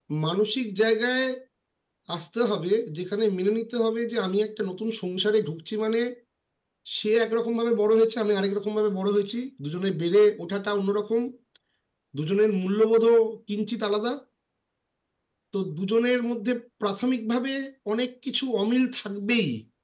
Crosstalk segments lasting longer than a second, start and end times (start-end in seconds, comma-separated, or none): none